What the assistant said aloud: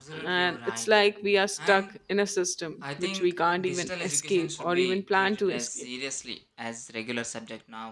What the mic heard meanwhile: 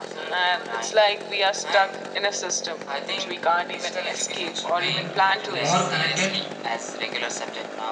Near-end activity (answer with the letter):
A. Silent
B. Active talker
B